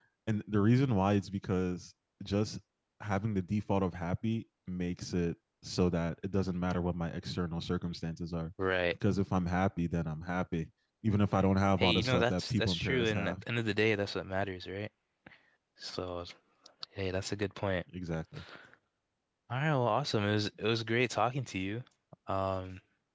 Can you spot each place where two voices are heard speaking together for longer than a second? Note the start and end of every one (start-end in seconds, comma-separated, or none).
11.8-13.3